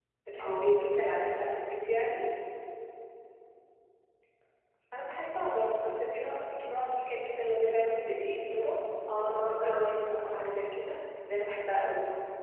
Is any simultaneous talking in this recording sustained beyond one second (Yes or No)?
Yes